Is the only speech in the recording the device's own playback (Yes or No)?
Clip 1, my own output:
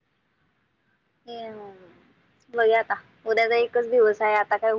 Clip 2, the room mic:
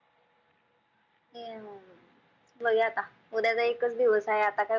Yes